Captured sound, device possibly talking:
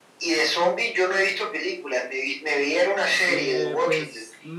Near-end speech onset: 3 s

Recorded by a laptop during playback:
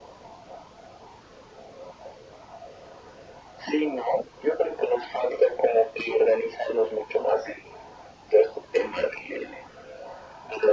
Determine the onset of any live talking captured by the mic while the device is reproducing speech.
none

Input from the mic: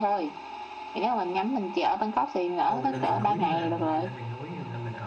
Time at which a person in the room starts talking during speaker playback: 3 s

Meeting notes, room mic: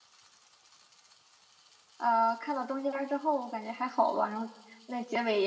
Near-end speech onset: 2 s

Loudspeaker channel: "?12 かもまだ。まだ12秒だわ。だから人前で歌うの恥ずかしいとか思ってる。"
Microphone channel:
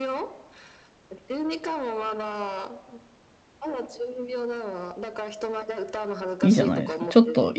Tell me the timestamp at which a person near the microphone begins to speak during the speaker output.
6 s

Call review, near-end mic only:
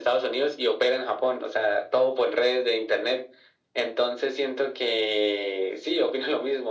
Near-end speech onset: none

